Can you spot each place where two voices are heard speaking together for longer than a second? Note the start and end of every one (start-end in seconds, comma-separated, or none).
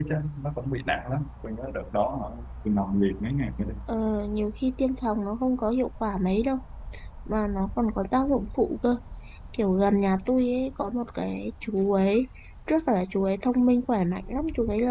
none